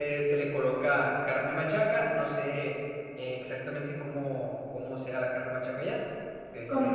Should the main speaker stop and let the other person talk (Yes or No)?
Yes